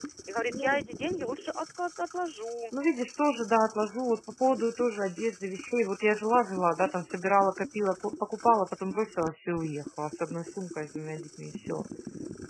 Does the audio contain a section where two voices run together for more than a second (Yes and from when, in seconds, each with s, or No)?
No